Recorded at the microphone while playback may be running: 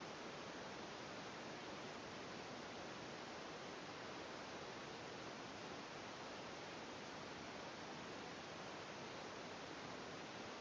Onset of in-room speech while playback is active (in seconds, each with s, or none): none